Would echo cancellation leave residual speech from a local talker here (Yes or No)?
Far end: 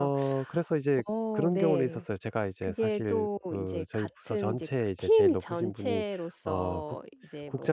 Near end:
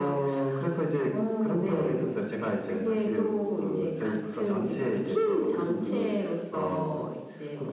No